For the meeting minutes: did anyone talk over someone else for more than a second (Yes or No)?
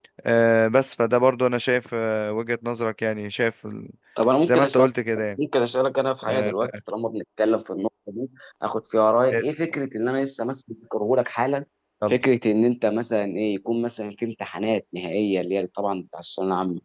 No